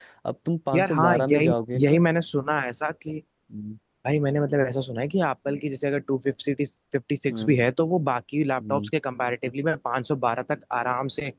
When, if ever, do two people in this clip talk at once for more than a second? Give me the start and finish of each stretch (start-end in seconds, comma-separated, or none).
0.7-2.0